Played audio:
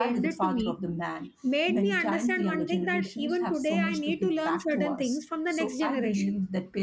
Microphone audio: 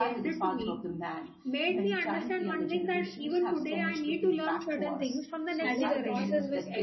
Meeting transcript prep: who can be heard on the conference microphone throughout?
both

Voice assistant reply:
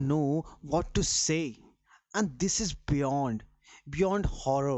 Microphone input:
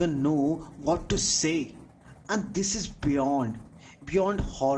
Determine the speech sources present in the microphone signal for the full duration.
echo only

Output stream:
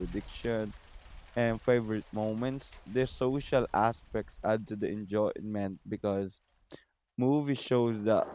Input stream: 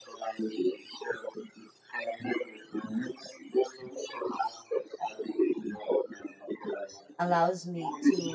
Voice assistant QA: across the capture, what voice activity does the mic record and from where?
both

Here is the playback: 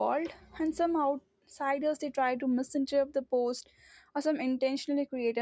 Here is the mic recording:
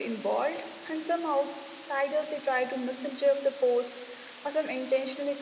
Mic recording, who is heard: echo only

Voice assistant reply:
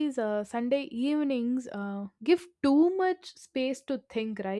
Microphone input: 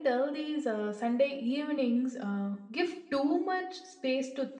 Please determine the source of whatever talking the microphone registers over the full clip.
echo only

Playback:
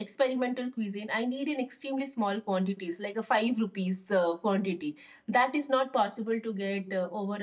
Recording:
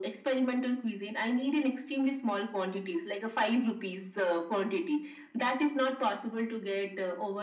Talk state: echo only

